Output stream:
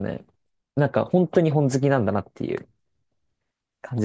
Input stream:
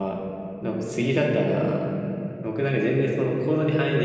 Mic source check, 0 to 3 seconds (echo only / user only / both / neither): user only